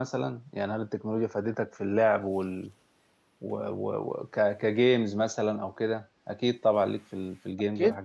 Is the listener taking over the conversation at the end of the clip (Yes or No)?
Yes